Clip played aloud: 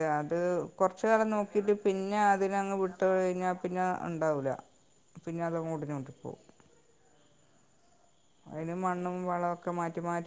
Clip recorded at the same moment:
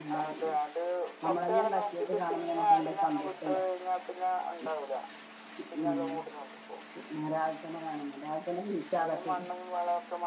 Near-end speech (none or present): present